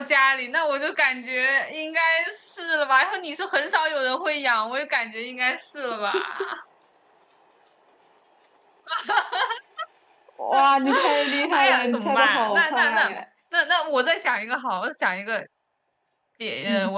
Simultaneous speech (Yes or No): Yes